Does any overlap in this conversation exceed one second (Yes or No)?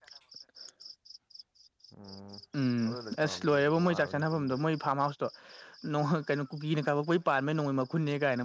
Yes